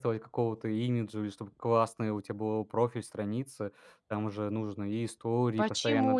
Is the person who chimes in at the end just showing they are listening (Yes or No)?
No